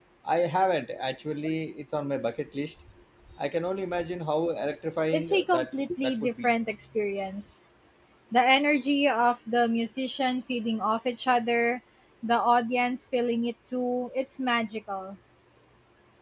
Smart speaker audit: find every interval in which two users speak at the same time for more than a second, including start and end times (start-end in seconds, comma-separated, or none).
5.1-6.5